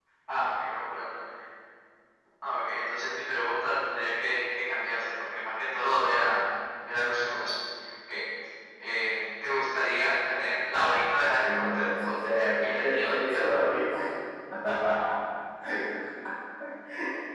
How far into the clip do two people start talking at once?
11 s

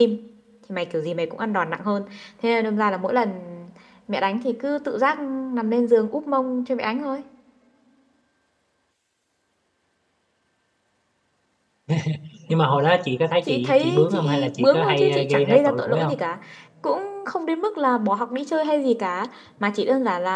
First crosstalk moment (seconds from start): 13 s

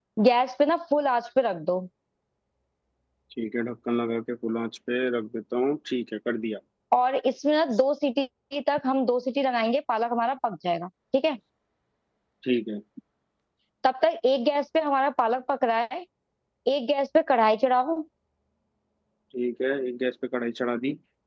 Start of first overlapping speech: none

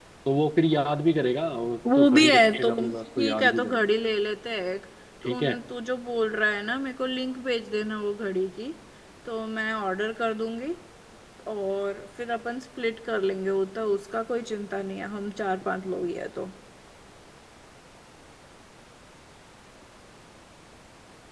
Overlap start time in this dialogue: 2 s

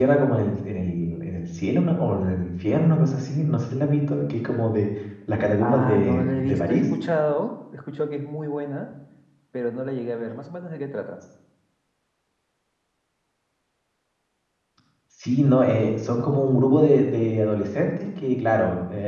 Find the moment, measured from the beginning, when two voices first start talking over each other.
6 s

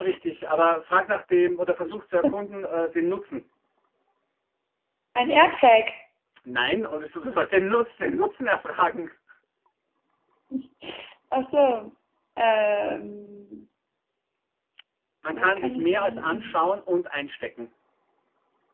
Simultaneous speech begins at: 15 s

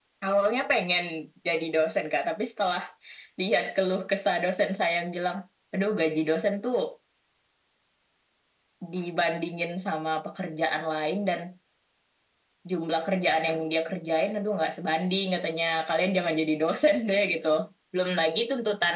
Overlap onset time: none

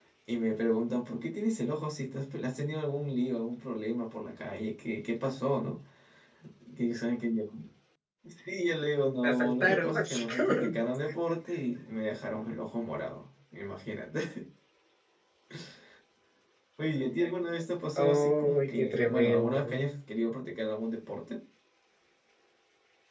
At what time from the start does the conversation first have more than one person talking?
9 s

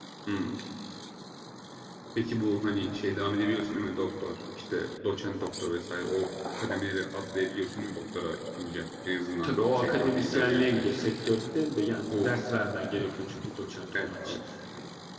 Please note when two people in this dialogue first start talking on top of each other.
9 s

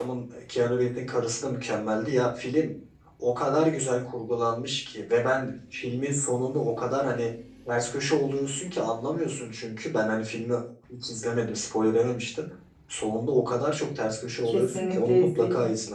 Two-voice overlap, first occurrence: 14 s

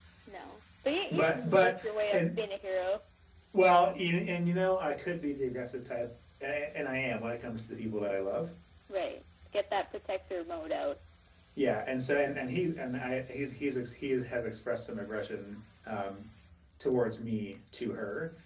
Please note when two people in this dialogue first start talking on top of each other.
1 s

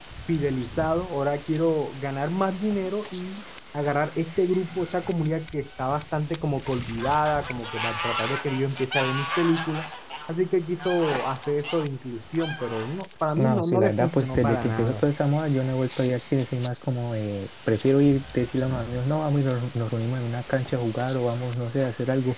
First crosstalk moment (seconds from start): 13 s

